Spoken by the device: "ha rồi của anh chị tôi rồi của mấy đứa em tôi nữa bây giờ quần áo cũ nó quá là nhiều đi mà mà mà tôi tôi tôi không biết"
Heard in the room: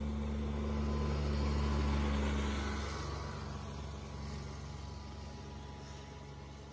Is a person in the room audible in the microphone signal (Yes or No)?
No